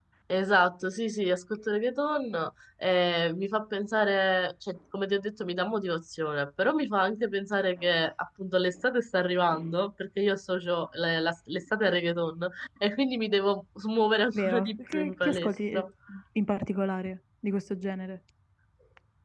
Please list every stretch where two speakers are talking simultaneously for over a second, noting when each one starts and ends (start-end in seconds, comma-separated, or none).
14.3-15.9